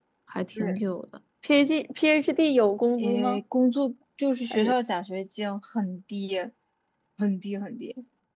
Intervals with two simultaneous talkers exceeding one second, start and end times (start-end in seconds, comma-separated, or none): none